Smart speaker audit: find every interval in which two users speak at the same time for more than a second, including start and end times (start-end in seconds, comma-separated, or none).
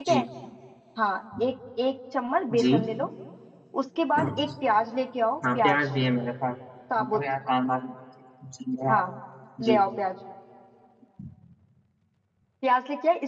none